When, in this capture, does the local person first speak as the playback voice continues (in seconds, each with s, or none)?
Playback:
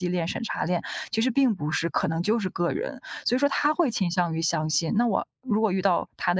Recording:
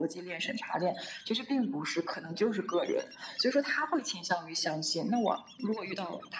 none